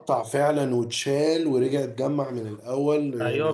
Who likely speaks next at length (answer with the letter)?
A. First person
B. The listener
B